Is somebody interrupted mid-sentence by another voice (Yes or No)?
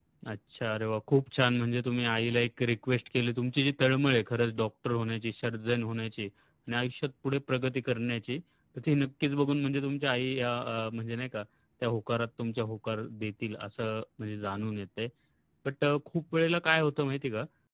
No